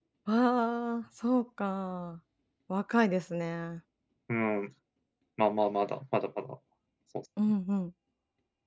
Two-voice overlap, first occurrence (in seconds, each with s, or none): none